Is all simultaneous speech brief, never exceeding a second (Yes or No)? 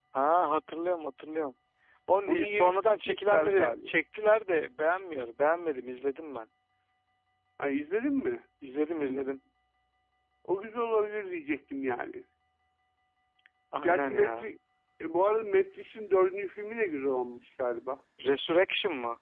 No